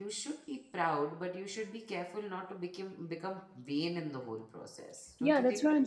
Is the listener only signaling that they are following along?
No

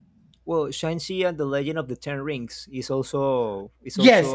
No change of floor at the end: No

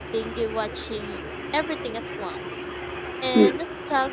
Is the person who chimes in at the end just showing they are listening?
Yes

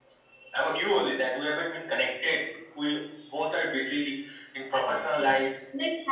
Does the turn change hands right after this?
Yes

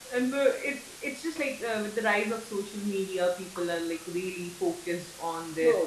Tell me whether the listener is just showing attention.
No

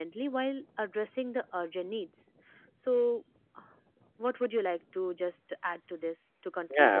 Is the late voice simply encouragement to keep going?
No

